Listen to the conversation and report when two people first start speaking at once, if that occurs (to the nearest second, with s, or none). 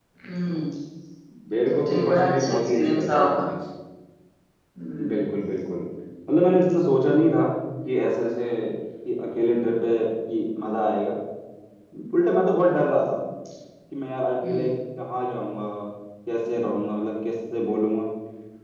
2 s